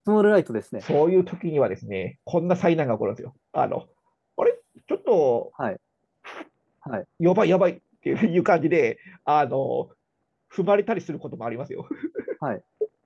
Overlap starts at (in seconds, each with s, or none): none